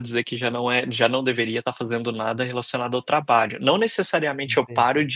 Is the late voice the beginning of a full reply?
No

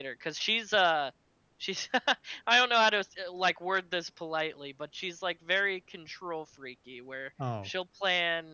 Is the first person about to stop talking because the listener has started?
No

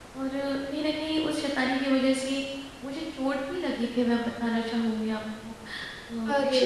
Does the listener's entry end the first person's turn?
No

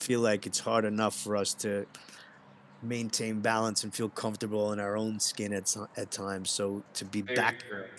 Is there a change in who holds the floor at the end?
No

